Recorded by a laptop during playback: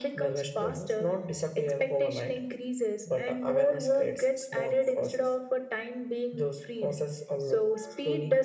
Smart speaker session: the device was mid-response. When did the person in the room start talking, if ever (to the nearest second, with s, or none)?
none